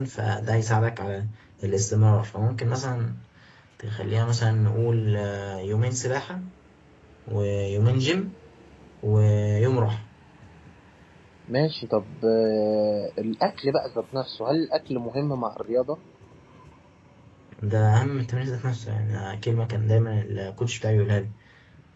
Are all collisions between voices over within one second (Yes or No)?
Yes